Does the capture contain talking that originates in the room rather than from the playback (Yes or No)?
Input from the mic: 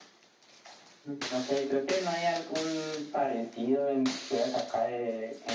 No